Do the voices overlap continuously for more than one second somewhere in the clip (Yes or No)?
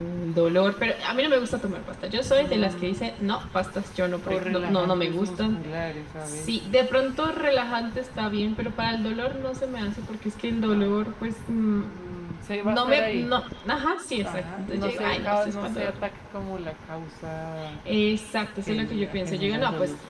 Yes